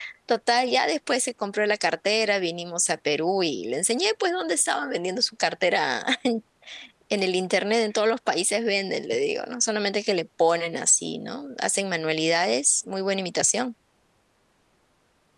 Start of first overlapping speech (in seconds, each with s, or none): none